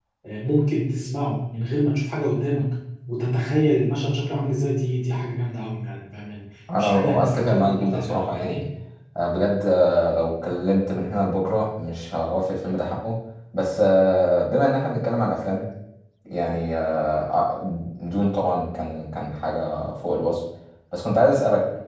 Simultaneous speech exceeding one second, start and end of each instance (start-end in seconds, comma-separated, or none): 6.8-8.6